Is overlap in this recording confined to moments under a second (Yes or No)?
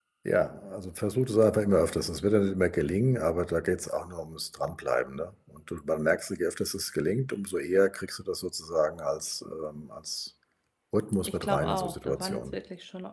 No